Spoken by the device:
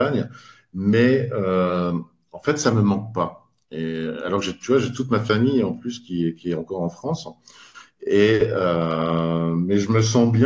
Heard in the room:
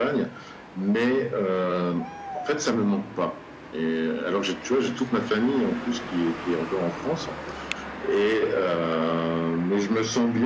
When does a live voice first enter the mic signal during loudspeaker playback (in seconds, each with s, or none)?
none